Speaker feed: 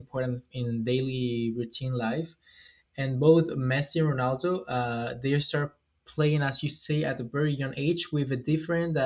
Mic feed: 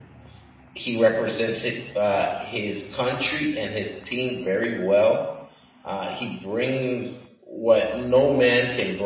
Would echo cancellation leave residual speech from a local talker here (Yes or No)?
Yes